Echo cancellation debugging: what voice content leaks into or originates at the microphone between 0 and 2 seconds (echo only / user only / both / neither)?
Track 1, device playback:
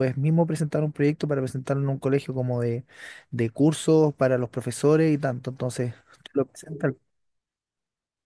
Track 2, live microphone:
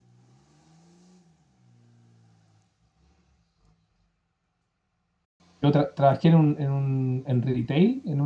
neither